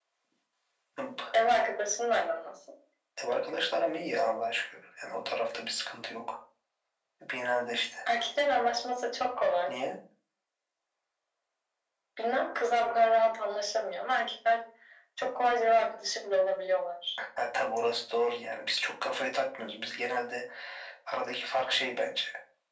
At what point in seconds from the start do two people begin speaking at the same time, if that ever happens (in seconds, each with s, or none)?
none